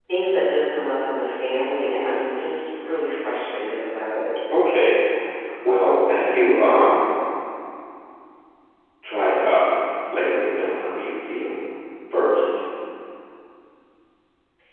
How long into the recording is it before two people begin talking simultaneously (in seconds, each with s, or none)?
none